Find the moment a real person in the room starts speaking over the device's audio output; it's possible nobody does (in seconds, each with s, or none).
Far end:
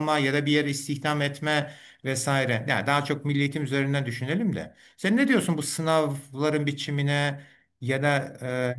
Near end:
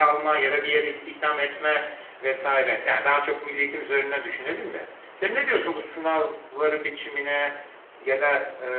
none